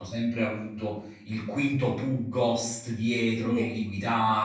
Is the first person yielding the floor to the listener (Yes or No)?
No